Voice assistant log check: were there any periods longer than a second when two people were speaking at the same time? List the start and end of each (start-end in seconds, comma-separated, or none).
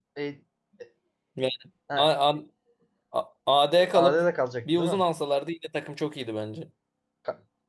none